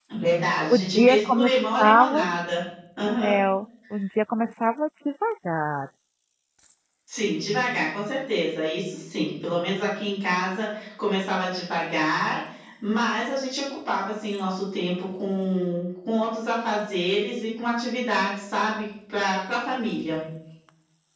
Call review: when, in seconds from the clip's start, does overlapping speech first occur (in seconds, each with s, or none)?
0.7 s